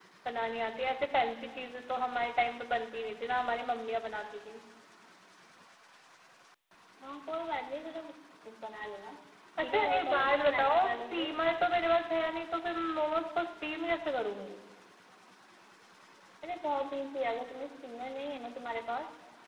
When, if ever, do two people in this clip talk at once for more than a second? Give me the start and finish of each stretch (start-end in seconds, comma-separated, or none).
9.6-11.3